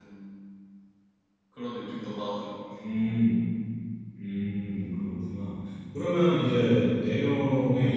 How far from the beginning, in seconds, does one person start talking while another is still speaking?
none

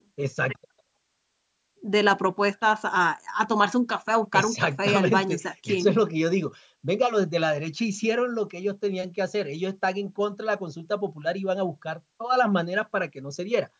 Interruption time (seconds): 4.3 s

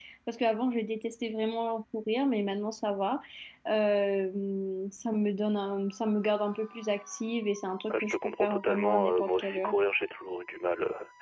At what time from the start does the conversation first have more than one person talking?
7.9 s

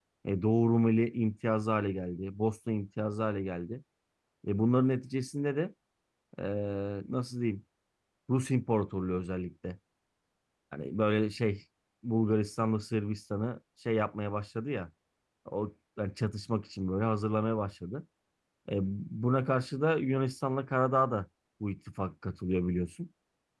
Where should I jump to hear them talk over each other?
none

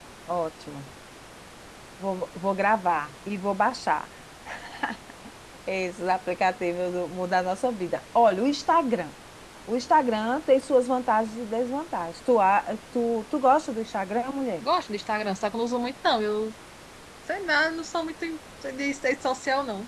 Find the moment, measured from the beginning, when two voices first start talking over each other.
none

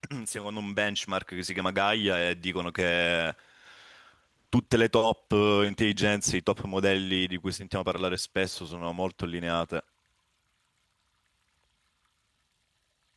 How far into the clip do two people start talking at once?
none

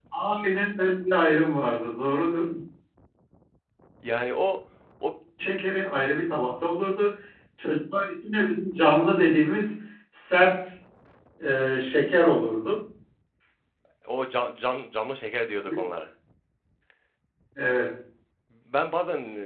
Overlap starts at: none

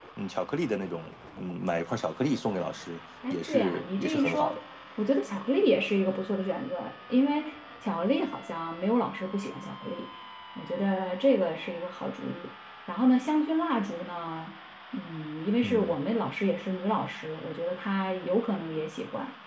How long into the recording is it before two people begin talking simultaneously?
3.3 s

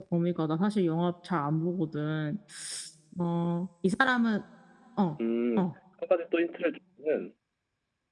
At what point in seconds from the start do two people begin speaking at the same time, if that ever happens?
none

